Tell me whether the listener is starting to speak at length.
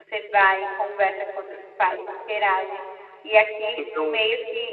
No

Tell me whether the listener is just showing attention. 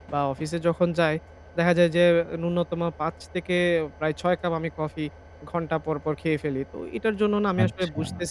Yes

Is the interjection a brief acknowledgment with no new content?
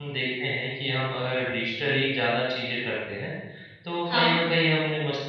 Yes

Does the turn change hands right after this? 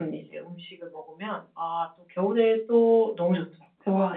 Yes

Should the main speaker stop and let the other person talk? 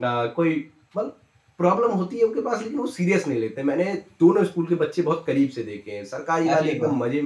No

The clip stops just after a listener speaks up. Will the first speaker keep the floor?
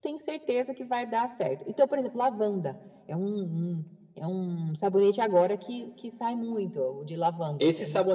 No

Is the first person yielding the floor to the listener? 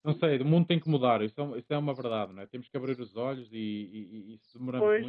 Yes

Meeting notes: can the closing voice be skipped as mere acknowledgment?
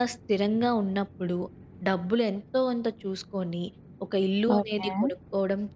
Yes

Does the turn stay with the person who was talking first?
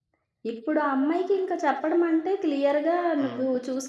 Yes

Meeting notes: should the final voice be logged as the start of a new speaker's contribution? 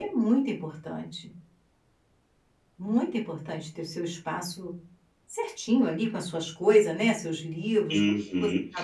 Yes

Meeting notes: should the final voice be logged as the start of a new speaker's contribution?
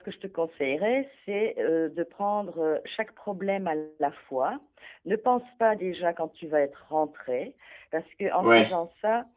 No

